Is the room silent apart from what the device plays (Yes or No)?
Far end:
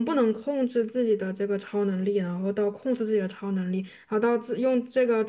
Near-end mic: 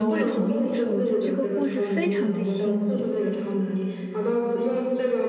No